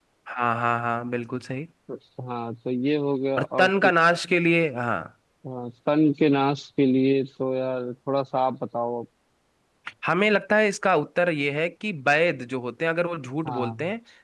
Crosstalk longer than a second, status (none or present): none